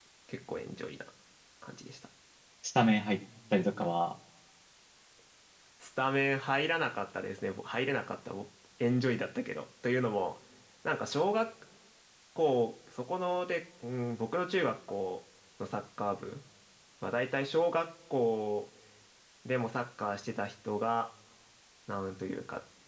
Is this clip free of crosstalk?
Yes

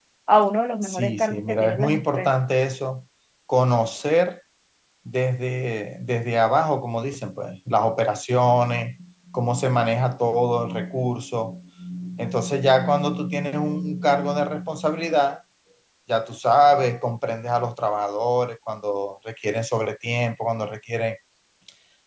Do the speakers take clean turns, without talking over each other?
No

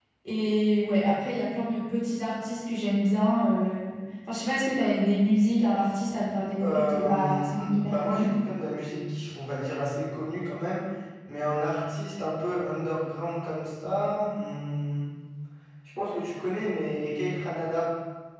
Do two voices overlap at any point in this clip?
Yes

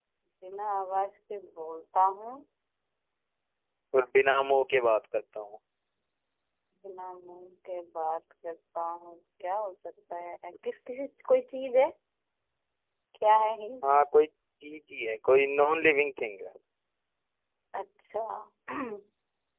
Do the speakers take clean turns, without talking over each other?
Yes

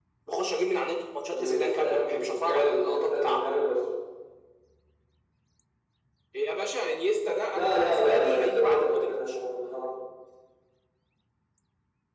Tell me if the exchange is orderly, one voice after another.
No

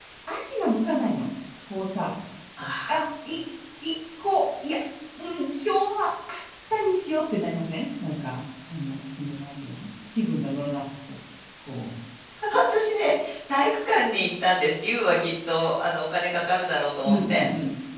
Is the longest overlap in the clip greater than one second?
No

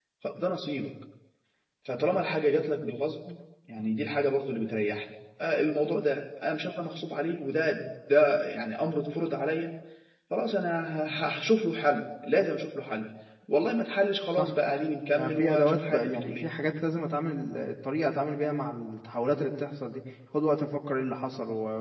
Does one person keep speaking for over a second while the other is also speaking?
Yes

